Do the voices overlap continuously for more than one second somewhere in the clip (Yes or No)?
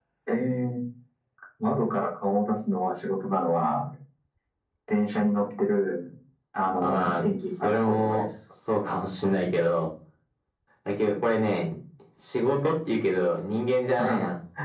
Yes